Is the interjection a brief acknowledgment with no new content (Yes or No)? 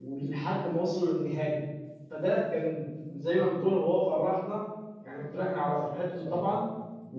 Yes